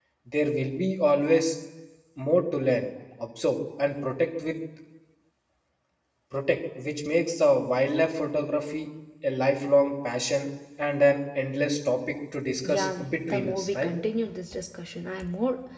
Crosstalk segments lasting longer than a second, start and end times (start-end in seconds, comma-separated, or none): 12.6-13.9